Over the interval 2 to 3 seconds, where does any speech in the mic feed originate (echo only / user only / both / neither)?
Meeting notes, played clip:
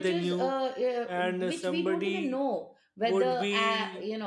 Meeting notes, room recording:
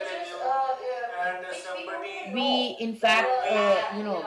both